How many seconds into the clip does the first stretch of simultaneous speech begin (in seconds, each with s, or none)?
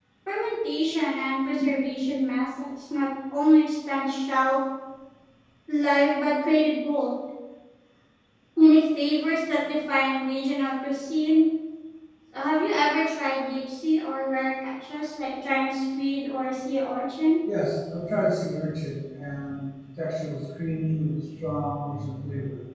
none